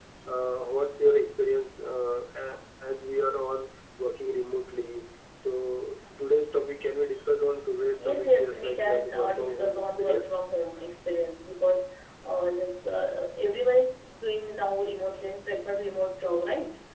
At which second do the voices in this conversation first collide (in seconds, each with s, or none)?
8.0 s